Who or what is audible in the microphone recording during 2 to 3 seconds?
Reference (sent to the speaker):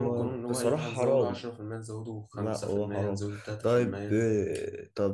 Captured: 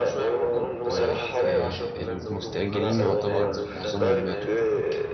both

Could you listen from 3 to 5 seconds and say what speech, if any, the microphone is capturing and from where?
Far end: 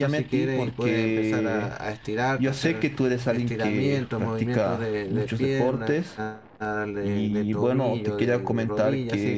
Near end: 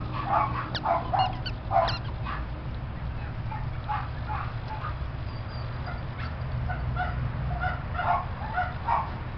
neither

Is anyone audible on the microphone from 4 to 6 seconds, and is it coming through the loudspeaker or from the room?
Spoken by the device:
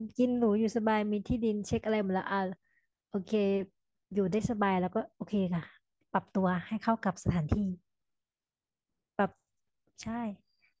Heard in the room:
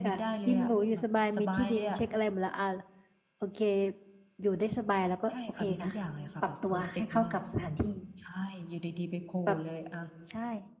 both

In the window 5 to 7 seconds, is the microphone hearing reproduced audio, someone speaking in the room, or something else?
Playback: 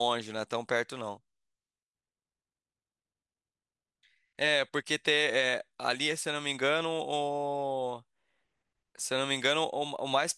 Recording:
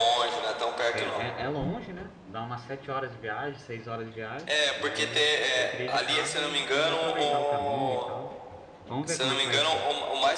both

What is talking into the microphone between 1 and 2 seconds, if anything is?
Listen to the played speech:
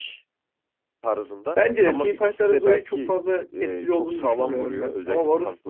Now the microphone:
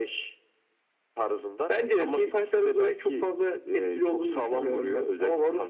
echo only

